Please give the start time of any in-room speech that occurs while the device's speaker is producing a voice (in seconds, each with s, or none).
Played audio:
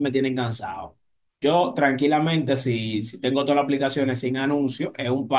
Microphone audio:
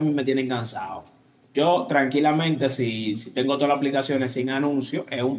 none